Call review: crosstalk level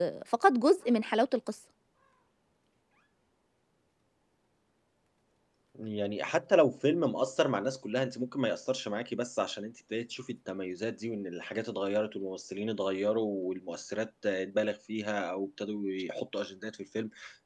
none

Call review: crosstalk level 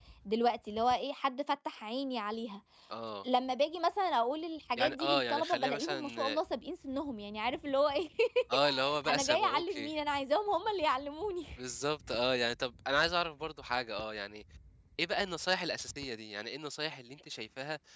present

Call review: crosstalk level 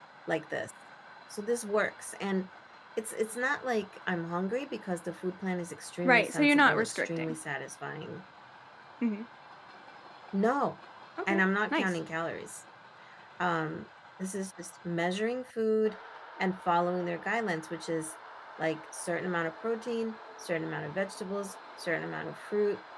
present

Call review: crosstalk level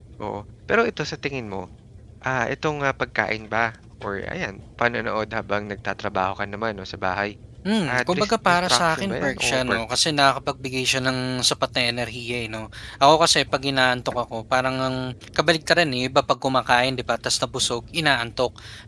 present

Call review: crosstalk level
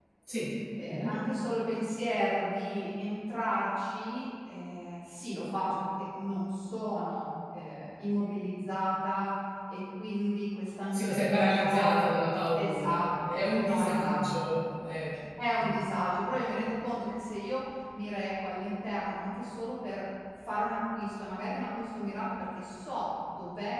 present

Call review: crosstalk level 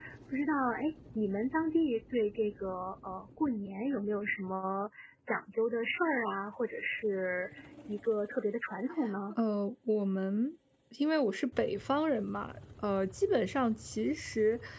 none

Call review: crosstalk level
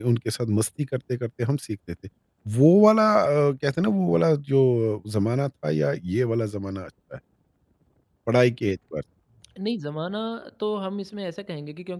none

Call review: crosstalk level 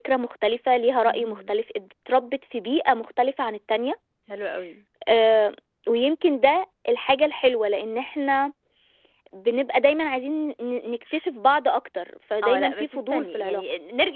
present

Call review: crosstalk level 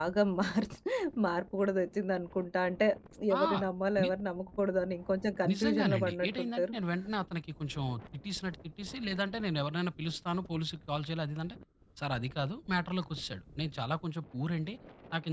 present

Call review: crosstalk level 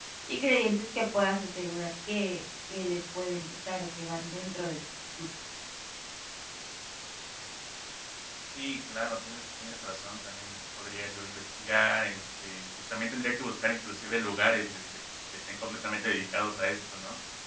none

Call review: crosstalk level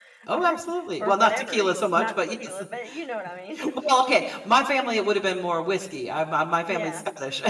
present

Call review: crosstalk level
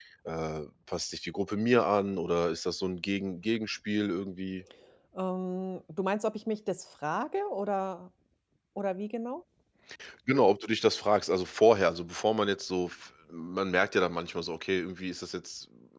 none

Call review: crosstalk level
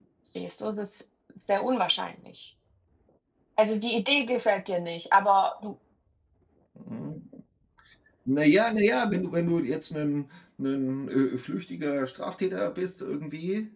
none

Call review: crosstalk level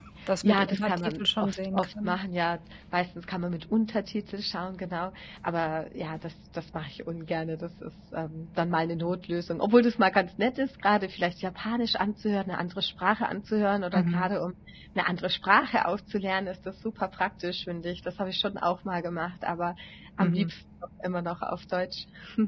present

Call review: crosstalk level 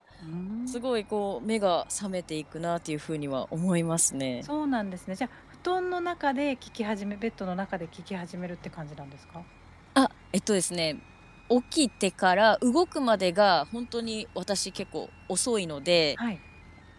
none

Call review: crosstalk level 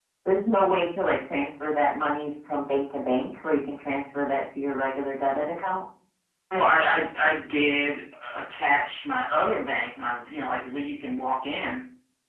none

